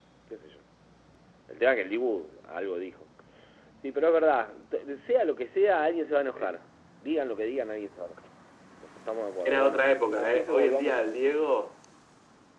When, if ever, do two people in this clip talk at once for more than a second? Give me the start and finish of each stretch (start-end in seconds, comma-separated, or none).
9.4-11.3